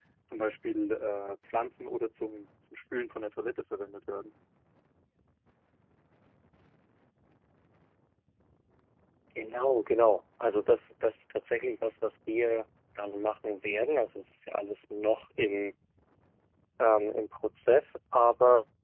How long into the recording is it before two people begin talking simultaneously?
none

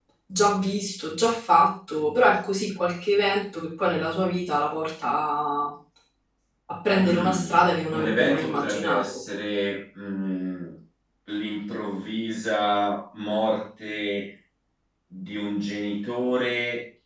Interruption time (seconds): 7.0 s

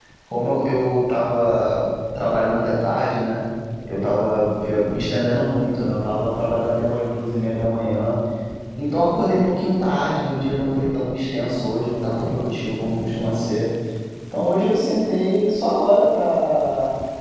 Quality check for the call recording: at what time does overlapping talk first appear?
none

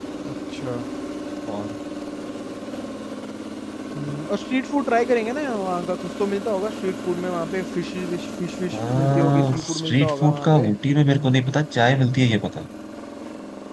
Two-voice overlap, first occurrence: 8.7 s

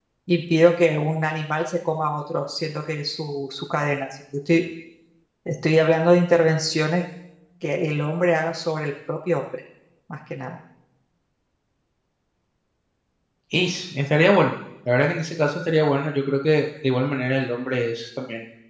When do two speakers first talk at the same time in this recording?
none

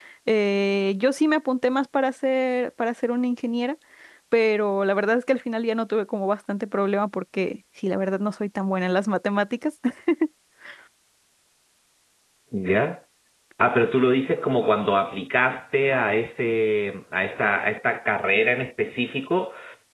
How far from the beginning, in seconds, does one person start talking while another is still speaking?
none

